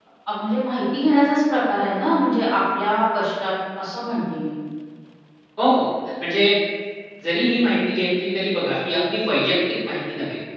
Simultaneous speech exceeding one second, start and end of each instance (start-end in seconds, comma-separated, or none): none